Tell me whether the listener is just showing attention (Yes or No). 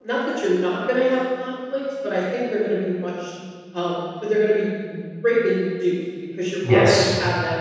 Yes